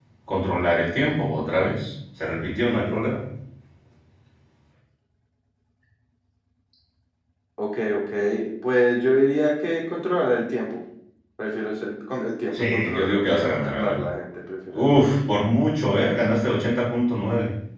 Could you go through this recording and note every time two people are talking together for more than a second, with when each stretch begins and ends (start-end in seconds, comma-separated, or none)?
12.7-14.0